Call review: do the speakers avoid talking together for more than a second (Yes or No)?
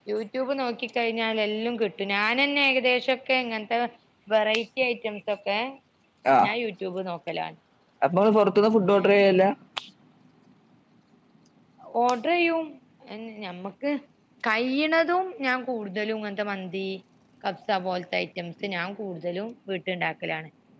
Yes